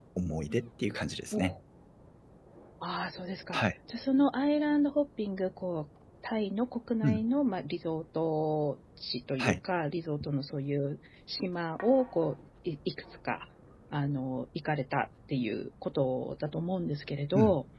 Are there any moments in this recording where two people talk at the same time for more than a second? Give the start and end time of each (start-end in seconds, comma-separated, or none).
none